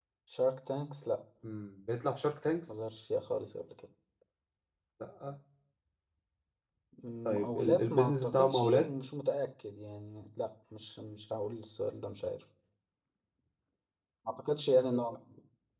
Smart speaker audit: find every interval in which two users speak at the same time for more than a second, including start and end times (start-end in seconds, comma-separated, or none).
7.3-8.9